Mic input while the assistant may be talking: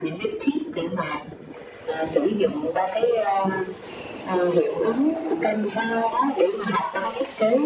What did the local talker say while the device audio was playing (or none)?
none